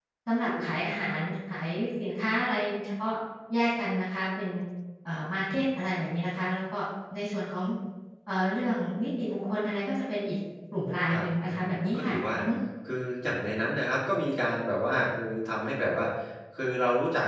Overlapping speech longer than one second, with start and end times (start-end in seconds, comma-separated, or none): 11.1-12.4